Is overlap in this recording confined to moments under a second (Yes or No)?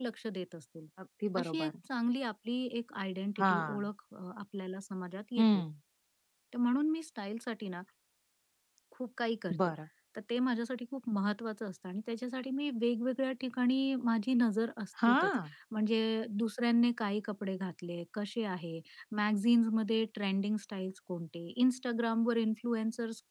Yes